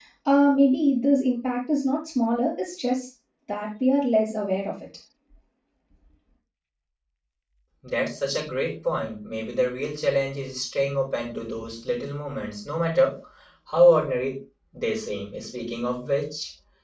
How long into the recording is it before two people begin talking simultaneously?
none

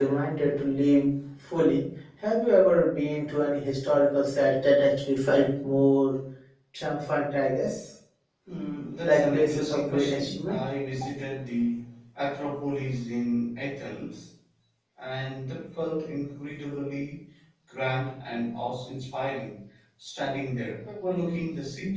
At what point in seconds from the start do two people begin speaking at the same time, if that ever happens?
9.0 s

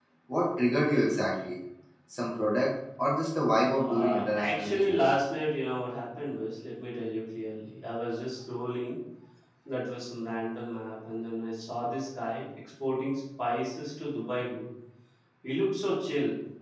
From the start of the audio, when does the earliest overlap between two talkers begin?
3.7 s

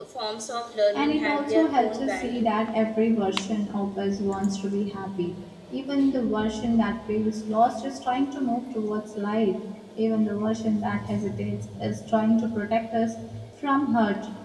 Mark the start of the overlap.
0.9 s

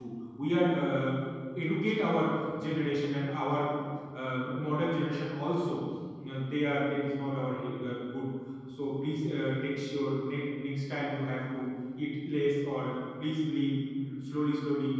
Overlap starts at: none

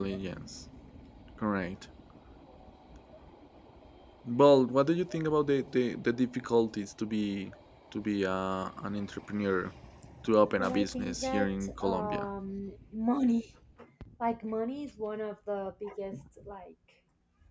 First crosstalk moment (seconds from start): 10.6 s

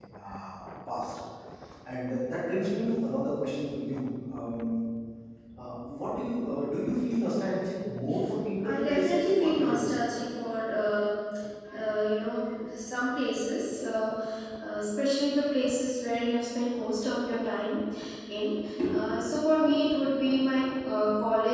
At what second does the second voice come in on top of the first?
8.6 s

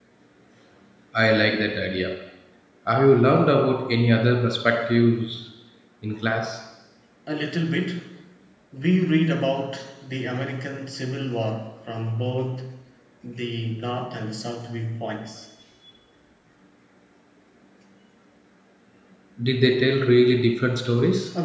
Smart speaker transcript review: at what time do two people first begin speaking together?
none

